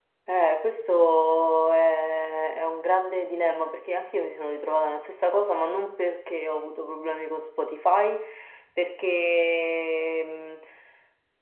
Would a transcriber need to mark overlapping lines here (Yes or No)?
No